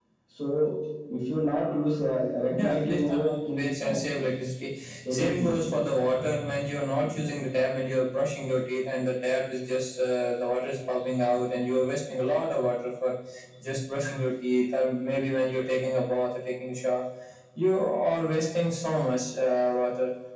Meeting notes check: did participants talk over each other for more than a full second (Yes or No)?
Yes